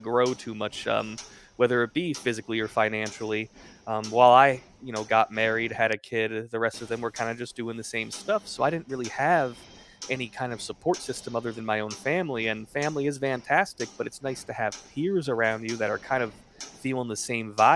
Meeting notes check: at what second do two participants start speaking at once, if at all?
none

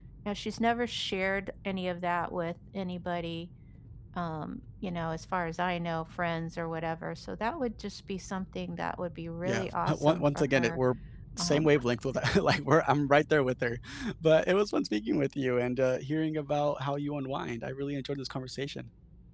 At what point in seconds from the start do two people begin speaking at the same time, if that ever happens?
9 s

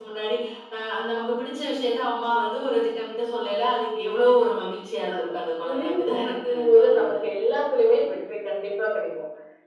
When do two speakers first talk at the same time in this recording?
5 s

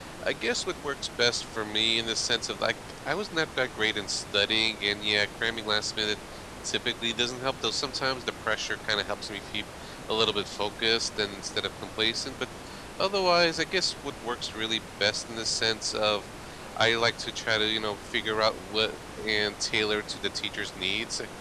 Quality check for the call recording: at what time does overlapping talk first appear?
none

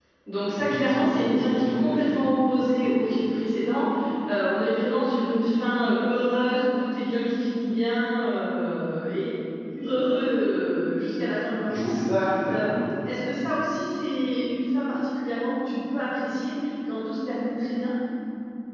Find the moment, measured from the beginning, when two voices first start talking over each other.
1 s

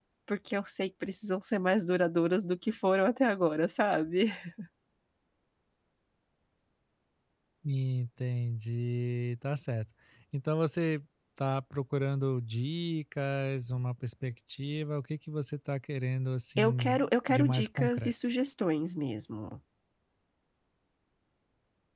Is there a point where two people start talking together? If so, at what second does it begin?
17 s

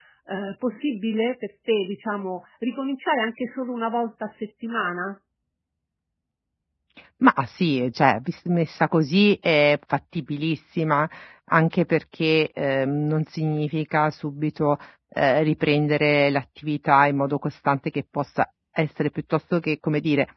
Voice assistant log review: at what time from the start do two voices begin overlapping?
none

